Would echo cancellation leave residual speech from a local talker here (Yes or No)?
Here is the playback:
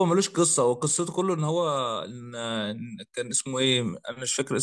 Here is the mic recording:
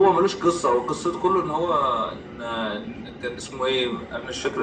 No